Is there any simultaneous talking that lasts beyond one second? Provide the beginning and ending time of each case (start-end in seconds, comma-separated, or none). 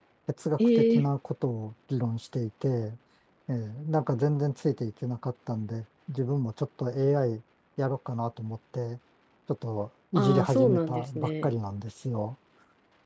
10.2-11.5